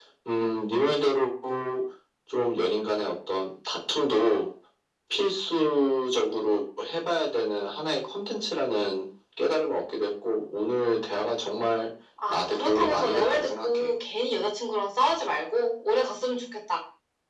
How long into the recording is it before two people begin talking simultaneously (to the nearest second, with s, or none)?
12 s